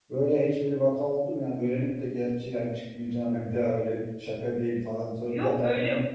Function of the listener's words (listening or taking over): taking over